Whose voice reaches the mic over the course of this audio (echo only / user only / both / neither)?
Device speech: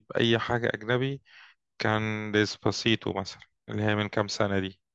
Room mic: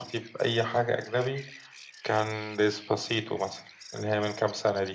echo only